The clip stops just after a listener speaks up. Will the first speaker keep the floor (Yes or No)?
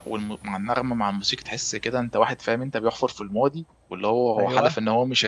Yes